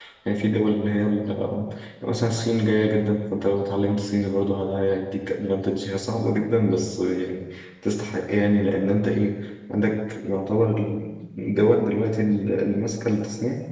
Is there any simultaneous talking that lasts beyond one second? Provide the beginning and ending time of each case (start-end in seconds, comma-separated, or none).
none